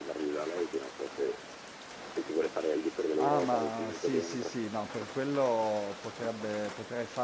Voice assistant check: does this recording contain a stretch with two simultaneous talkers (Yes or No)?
Yes